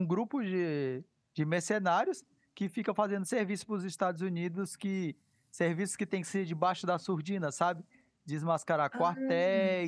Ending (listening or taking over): listening